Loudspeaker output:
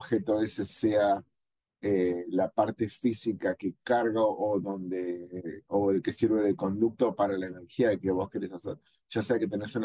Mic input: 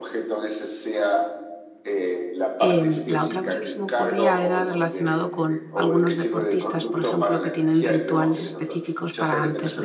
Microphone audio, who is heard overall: both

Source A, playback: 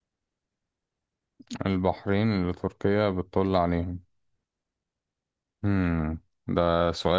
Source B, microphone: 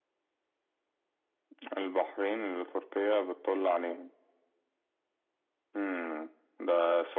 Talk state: echo only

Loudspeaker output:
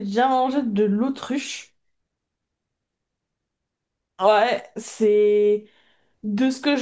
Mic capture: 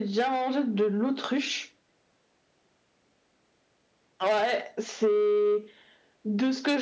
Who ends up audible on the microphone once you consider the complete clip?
echo only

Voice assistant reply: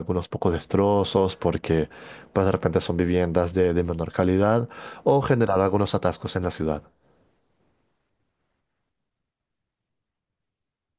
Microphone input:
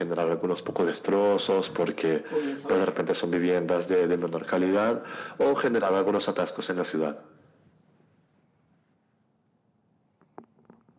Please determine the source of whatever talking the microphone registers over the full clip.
both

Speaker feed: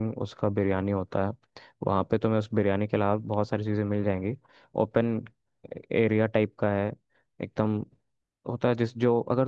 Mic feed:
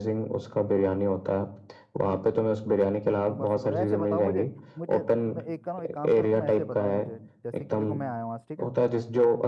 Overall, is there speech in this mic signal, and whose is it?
both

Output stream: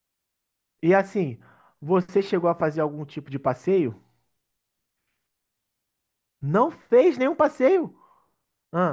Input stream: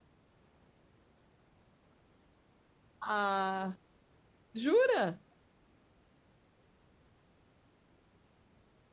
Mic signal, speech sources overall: user only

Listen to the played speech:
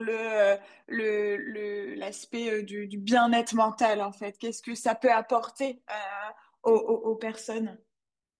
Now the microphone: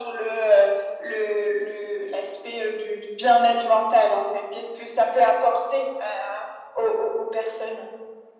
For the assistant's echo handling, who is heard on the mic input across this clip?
echo only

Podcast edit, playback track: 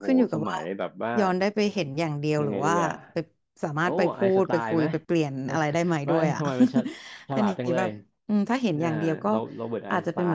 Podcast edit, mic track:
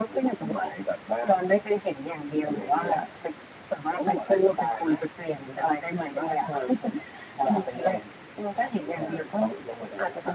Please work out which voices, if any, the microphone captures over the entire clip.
echo only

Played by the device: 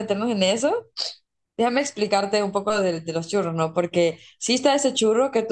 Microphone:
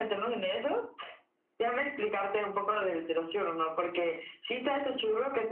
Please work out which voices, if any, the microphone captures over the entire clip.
echo only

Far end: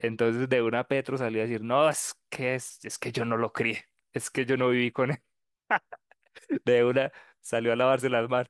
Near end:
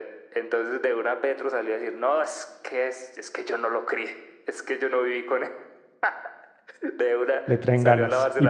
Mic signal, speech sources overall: both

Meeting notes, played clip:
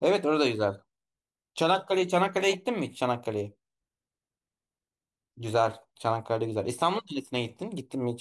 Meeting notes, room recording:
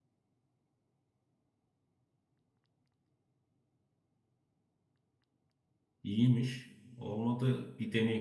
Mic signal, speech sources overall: user only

